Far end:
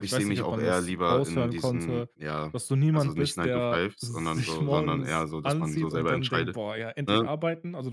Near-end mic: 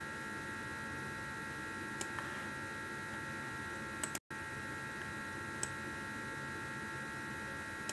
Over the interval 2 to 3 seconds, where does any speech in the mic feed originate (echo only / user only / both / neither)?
neither